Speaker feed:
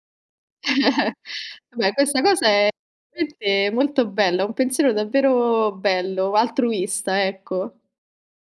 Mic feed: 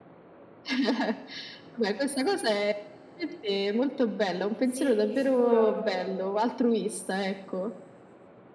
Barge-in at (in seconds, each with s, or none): 4.6 s